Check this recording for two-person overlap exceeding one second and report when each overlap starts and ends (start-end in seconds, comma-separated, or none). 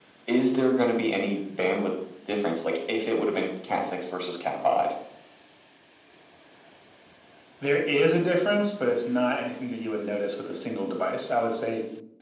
none